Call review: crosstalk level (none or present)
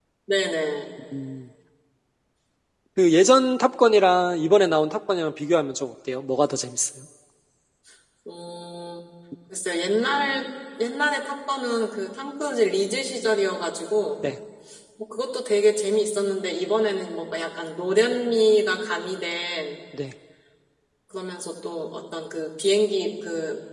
none